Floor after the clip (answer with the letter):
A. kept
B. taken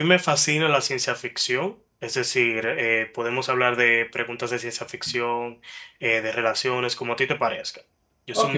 B